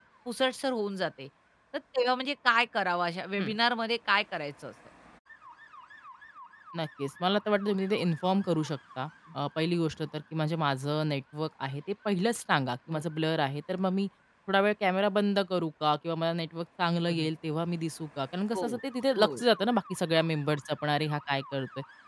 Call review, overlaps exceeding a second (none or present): none